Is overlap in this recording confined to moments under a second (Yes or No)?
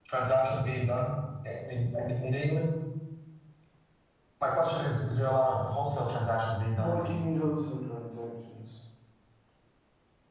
Yes